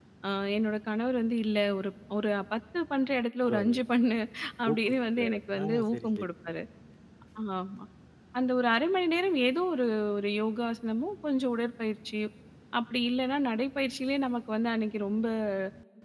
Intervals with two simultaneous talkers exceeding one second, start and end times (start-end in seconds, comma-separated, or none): 4.7-6.3